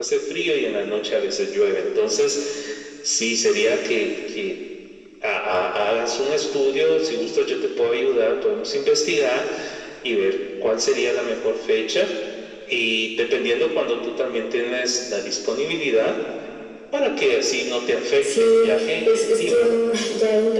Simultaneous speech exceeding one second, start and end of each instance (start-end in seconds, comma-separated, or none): 18.2-20.0